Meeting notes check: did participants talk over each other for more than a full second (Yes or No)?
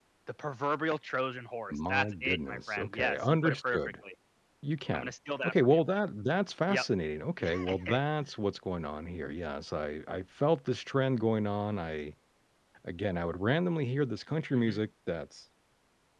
Yes